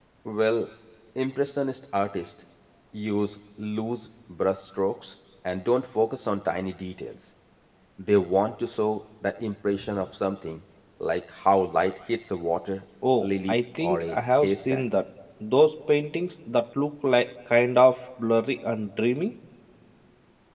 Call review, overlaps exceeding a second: present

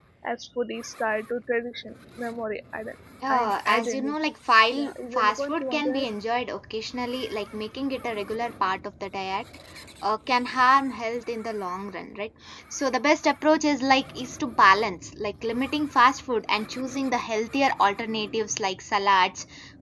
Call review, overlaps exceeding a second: present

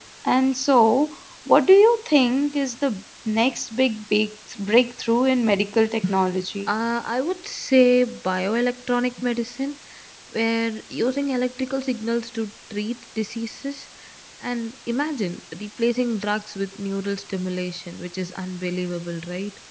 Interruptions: none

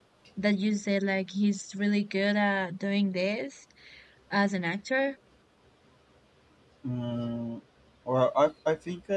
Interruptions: none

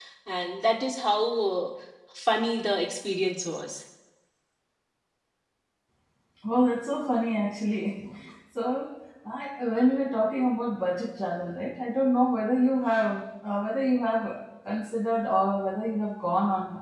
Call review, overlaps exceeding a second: none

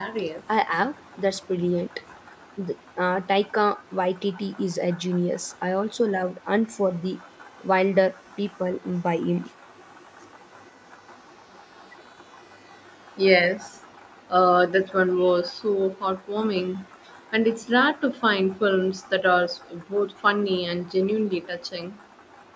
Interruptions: none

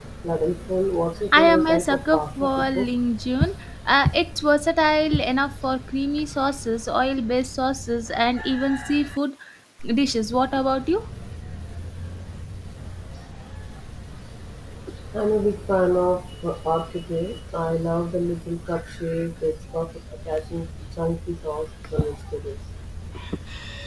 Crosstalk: present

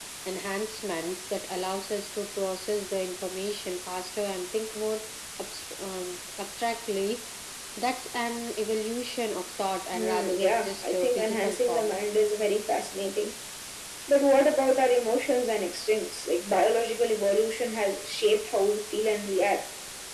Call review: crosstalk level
present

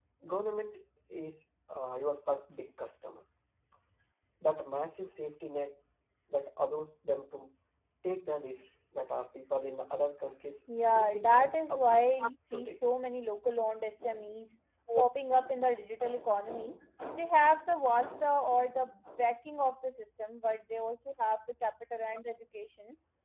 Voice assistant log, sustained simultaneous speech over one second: present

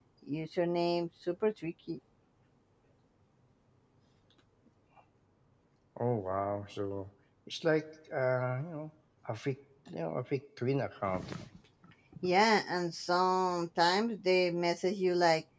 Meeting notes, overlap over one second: none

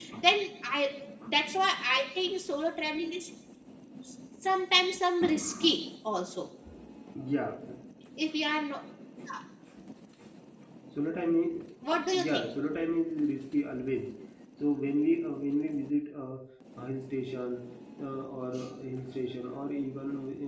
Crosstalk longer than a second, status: none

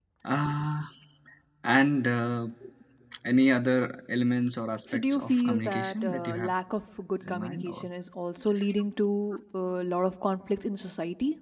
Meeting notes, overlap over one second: present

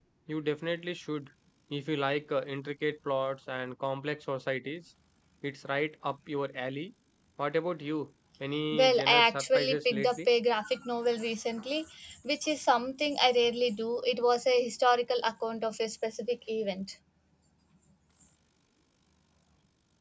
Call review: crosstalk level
present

